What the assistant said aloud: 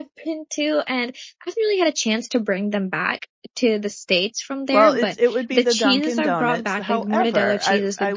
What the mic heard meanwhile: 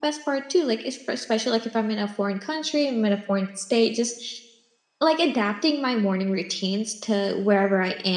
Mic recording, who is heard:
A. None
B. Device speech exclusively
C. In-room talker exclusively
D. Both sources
C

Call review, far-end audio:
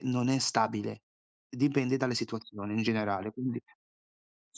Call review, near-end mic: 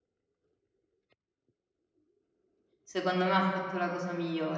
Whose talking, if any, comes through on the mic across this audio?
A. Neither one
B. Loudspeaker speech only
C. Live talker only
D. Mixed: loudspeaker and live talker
C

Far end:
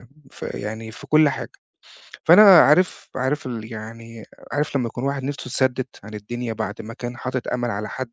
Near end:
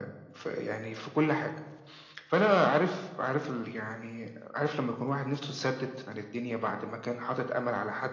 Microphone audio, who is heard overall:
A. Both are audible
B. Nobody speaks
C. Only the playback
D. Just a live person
C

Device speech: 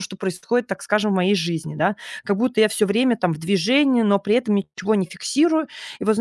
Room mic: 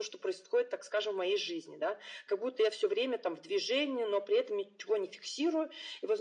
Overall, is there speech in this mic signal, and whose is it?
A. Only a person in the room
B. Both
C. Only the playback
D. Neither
C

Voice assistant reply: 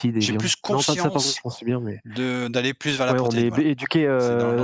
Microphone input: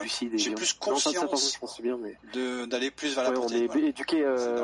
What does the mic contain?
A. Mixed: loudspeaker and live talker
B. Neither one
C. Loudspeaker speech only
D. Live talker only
C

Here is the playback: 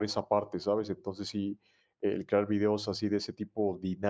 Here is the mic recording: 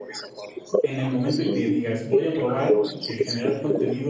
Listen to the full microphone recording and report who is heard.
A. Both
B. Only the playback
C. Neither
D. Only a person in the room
A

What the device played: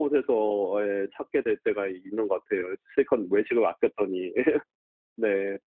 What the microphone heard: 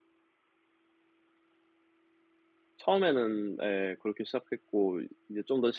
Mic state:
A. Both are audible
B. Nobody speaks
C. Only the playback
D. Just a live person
D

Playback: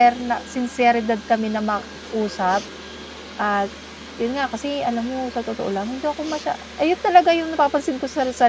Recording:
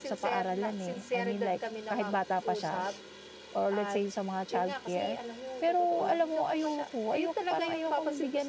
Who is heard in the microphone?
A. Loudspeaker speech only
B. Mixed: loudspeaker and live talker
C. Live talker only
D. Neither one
B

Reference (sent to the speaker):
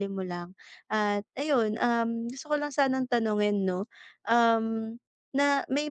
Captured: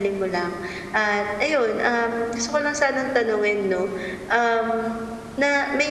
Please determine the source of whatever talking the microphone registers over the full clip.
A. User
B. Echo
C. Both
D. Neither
B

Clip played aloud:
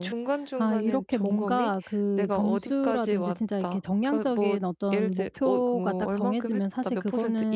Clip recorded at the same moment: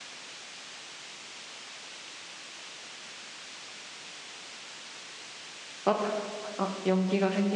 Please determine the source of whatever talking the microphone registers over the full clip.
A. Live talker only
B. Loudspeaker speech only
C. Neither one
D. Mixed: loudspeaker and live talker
A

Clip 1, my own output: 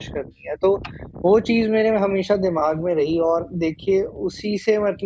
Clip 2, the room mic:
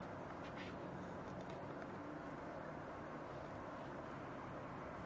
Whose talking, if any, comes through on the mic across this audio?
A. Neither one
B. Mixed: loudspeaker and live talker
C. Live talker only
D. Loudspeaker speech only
A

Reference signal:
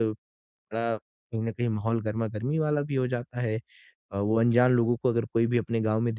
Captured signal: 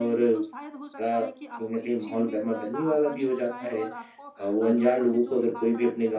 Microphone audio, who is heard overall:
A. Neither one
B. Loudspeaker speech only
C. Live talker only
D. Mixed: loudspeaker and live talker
D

